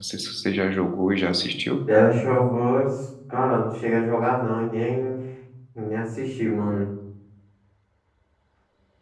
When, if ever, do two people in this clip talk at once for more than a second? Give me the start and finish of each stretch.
none

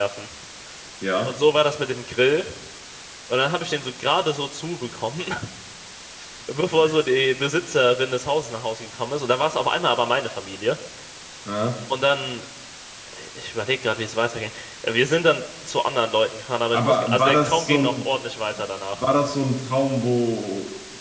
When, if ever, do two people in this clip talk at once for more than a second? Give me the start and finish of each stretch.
16.7-18.1

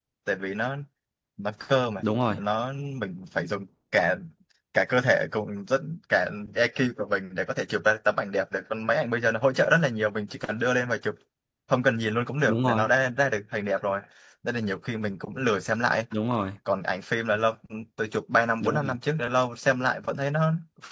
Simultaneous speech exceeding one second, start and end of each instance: none

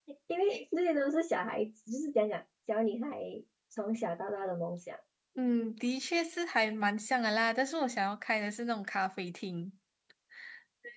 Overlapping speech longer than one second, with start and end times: none

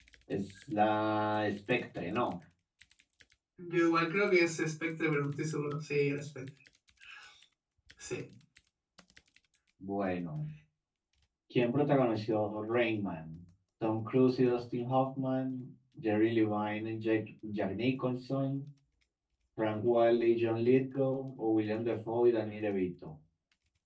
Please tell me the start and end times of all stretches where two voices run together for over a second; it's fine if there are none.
none

